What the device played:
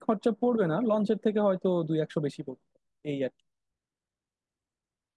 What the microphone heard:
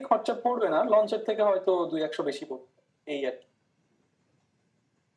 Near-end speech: none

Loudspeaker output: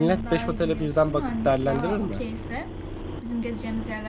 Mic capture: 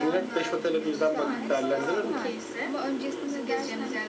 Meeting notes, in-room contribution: present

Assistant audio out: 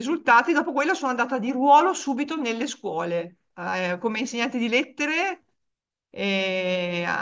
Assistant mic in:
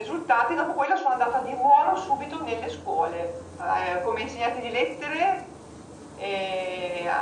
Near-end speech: none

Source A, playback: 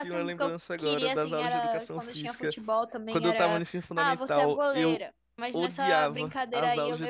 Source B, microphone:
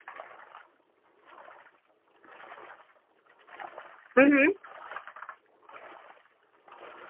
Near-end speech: present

